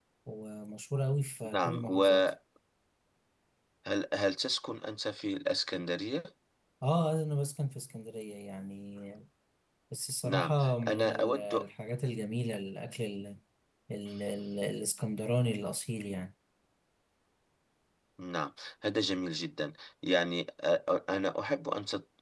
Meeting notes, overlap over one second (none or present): present